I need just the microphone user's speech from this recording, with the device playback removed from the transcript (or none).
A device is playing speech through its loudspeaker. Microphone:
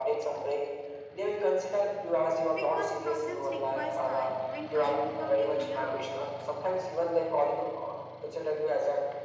Because presence requires time, and time without a clear output